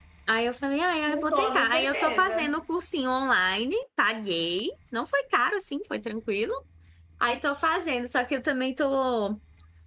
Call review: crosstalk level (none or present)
present